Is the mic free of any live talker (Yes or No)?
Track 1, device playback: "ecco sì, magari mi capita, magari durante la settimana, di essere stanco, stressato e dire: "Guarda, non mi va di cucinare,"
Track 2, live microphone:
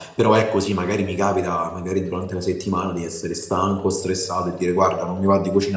Yes